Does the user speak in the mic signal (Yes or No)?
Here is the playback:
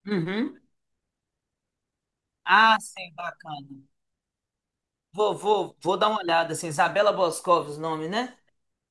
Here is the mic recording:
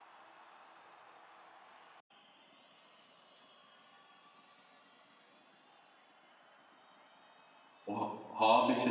Yes